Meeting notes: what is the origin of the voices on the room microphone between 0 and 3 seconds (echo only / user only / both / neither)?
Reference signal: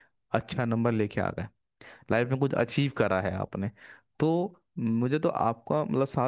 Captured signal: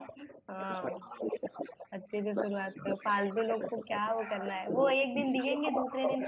both